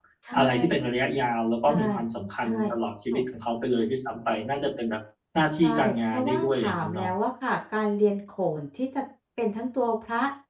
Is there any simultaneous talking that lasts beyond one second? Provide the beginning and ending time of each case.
5.6-7.1

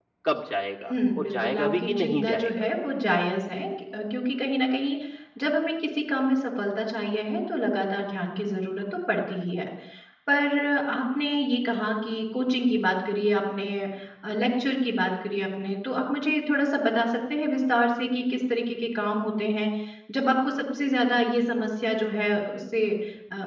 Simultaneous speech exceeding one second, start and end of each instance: 0.9-2.6

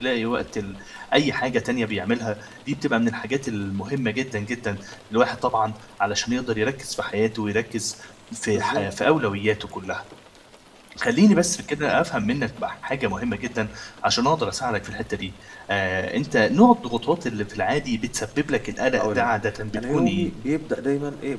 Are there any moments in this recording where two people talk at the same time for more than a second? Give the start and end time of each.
19.0-20.3

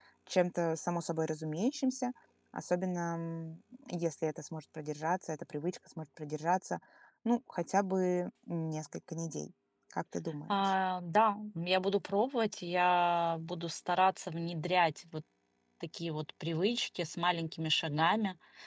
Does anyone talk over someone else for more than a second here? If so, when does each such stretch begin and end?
none

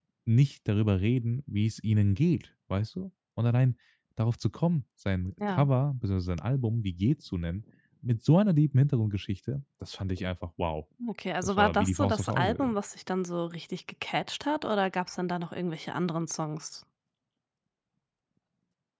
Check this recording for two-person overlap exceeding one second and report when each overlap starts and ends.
11.4-12.7

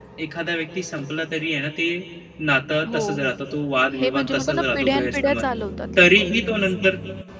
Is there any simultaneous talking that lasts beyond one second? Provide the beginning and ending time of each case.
4.0-5.4

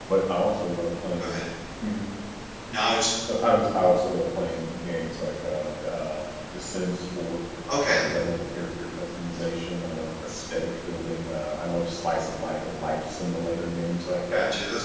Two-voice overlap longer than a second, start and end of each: none

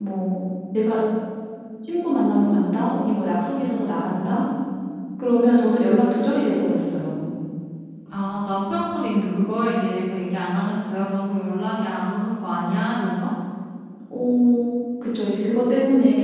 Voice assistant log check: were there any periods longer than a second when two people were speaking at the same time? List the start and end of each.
none

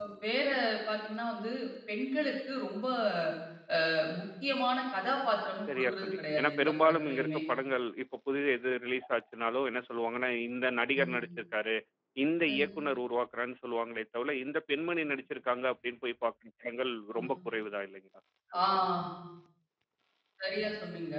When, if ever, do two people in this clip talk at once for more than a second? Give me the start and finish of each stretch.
5.7-7.4

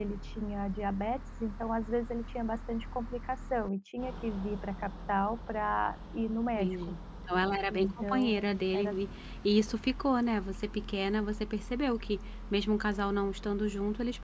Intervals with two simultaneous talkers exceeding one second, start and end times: 7.7-8.9

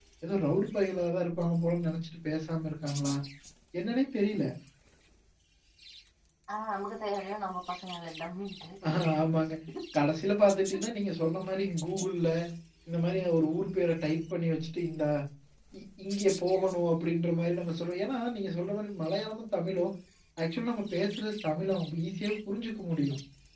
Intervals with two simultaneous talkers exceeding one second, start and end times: none

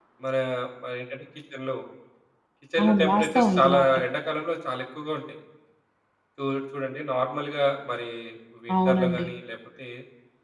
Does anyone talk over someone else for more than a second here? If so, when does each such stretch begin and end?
2.8-4.0

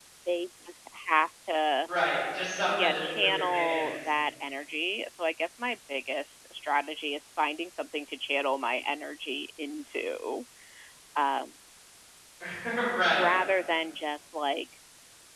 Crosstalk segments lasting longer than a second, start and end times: 2.7-4.0

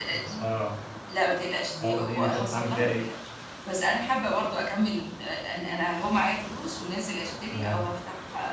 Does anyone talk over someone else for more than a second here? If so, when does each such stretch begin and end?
1.8-3.1

